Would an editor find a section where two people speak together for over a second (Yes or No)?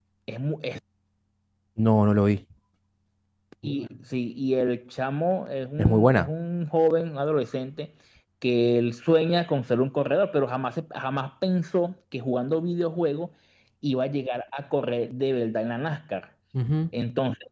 No